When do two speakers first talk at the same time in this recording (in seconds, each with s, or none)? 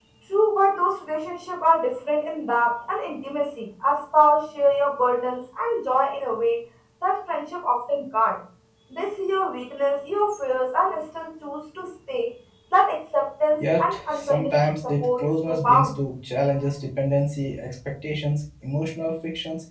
13.6 s